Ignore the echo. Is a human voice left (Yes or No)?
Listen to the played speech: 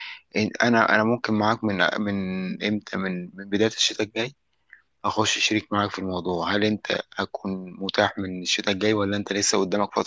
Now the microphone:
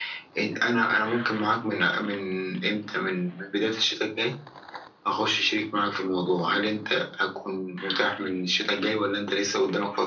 No